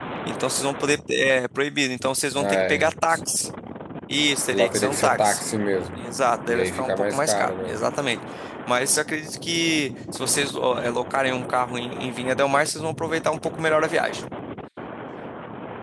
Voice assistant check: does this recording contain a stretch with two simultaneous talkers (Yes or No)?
Yes